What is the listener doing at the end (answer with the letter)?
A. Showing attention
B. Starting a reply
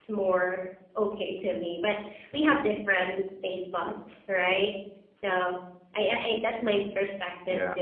A